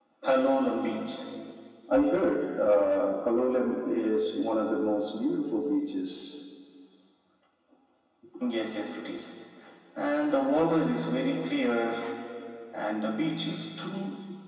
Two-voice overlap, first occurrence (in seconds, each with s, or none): none